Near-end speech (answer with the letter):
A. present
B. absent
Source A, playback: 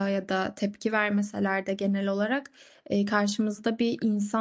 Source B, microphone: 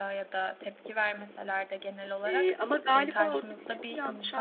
A